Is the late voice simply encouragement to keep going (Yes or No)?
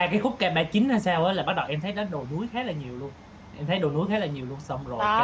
No